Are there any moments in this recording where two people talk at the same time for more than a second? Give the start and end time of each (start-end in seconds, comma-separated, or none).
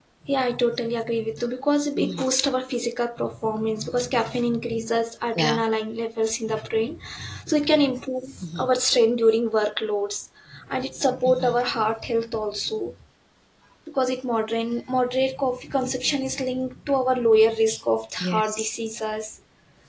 none